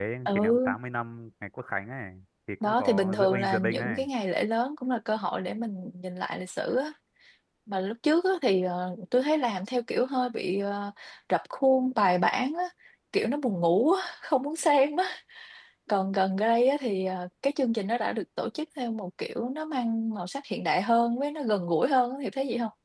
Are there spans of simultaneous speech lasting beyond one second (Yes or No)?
Yes